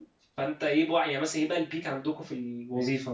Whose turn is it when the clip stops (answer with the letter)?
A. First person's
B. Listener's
B